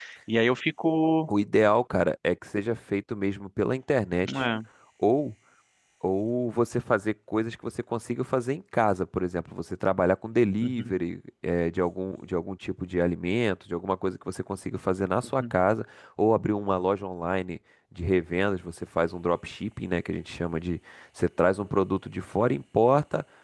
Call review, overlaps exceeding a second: none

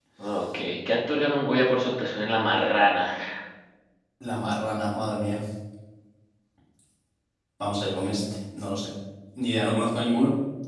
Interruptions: none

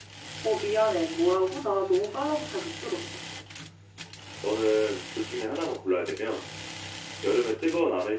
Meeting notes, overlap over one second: none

